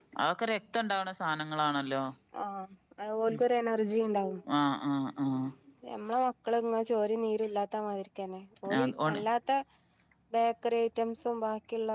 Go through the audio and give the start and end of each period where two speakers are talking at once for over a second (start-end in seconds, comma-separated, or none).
none